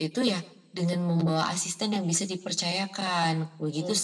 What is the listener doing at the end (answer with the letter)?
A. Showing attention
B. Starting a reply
B